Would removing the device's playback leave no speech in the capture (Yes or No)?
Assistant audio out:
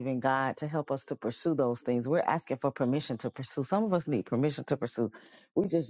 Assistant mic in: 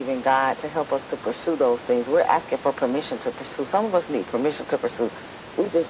Yes